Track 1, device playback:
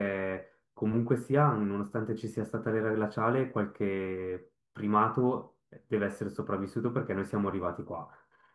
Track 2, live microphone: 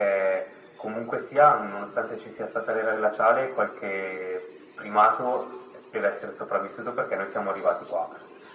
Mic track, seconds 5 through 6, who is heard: echo only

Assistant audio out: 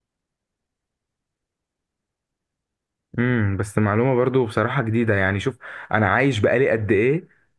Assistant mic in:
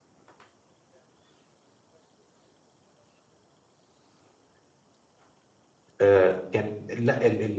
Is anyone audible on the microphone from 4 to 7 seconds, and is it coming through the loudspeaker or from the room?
user only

